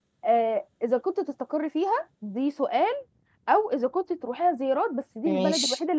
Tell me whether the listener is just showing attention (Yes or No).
Yes